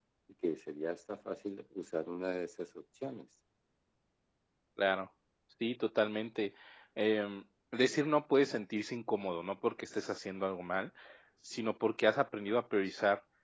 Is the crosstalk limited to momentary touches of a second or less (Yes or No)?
Yes